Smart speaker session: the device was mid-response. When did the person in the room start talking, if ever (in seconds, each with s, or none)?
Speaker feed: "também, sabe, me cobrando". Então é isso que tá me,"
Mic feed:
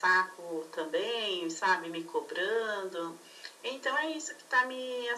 none